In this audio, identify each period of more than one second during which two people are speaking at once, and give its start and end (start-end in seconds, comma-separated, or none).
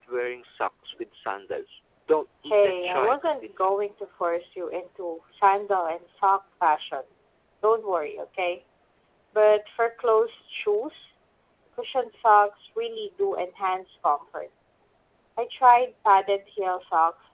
2.5-3.9